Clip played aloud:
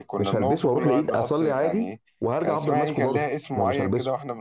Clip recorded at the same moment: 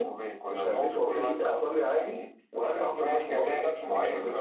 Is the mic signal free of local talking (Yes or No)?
No